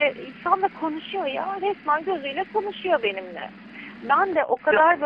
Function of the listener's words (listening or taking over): listening